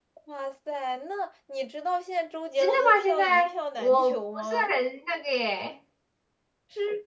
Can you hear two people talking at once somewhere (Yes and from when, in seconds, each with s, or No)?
Yes, from 2.6 s